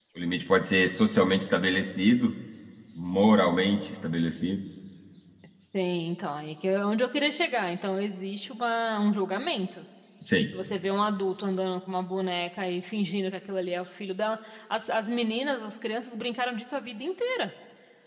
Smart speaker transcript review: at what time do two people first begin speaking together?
none

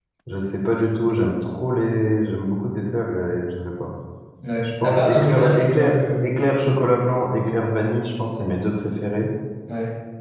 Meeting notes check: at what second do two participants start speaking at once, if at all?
4.8 s

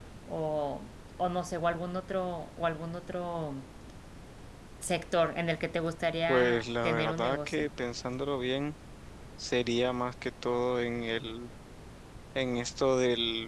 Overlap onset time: 6.3 s

